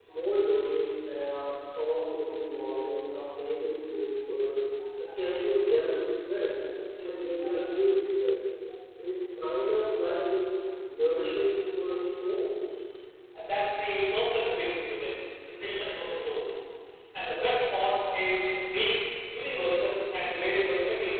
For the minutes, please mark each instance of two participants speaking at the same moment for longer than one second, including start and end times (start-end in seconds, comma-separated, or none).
none